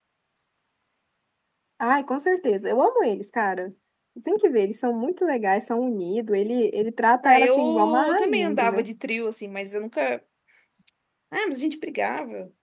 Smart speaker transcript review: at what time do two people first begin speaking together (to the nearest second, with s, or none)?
7 s